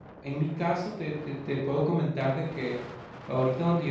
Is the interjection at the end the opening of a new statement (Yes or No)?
No